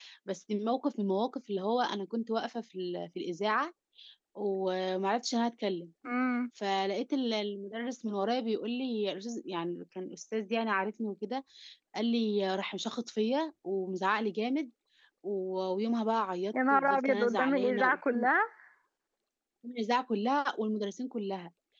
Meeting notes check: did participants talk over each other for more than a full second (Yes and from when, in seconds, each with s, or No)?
Yes, from 16.5 s